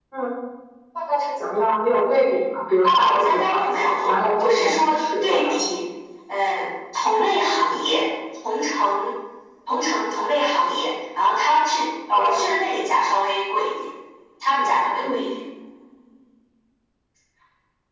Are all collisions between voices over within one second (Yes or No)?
No